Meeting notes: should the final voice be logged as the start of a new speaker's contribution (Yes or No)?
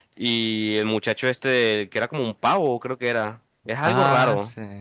Yes